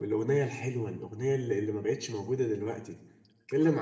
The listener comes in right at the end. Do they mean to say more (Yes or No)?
No